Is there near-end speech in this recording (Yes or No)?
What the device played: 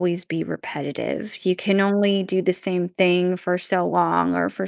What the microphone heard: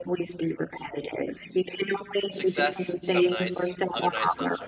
Yes